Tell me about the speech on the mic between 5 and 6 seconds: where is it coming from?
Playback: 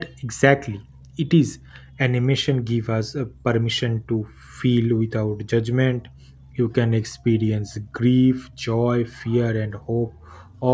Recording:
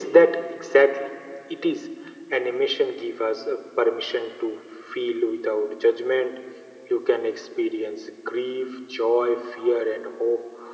echo only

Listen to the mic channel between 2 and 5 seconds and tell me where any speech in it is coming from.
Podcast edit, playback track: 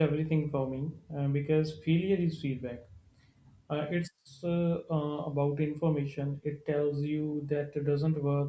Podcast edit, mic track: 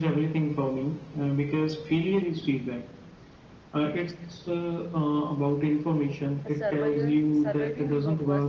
echo only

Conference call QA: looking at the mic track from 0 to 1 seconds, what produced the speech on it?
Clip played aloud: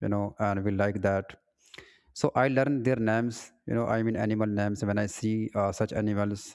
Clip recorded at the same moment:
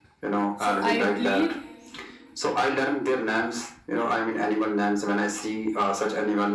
both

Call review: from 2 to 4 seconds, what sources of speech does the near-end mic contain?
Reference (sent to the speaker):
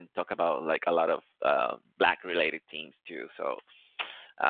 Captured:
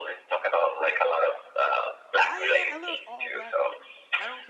both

